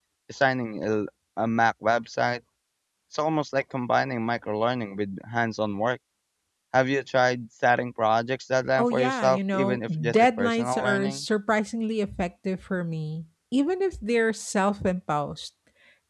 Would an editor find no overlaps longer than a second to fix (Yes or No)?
No